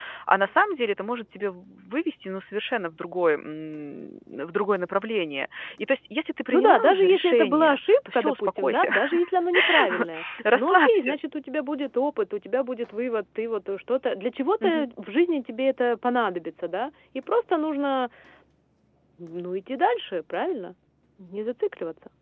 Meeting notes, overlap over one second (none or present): present